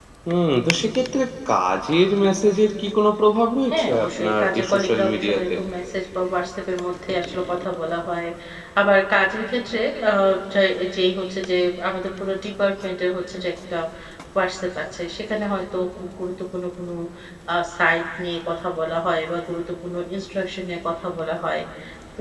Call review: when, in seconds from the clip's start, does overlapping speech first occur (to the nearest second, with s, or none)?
4 s